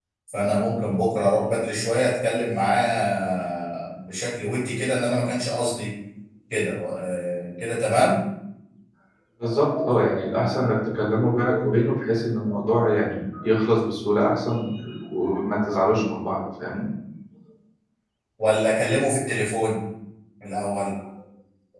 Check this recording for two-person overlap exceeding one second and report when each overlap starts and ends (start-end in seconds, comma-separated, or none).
none